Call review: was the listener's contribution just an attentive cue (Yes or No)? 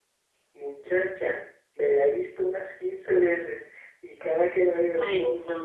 Yes